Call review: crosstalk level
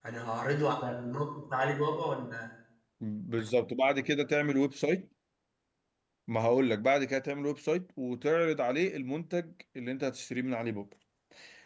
none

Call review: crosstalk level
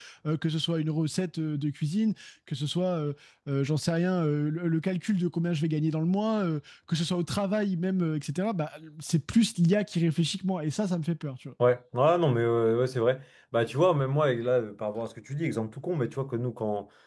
none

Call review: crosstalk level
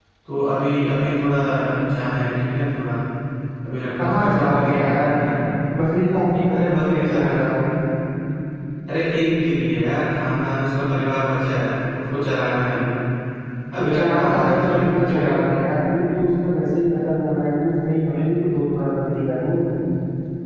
present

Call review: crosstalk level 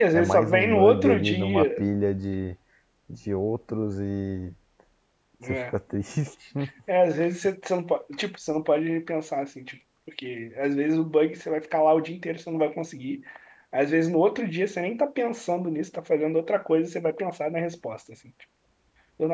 present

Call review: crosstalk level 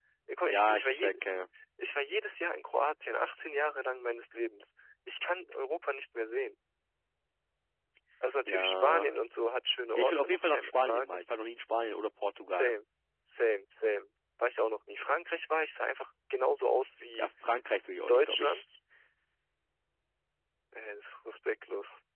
present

